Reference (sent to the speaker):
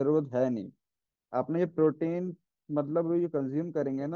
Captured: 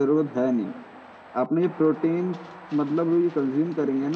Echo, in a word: present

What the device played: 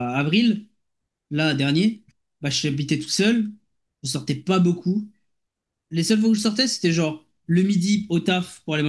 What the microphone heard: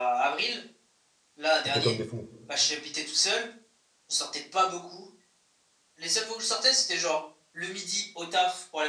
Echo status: present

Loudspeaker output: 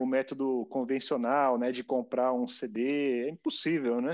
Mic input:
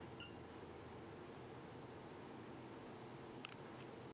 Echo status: none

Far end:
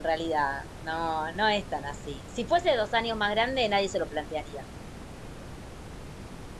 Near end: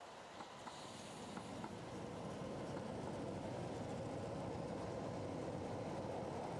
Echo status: none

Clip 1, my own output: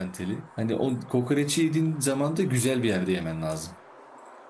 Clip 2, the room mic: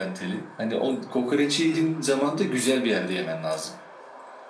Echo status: present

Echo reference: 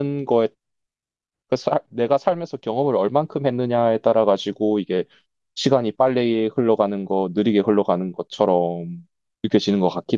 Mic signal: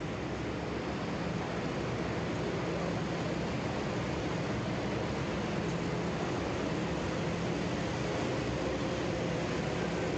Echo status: none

